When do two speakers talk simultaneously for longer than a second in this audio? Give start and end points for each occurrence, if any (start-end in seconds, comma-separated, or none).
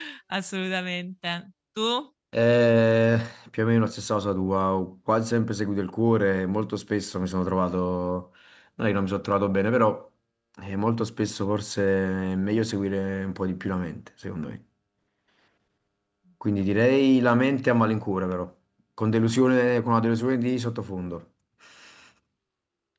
none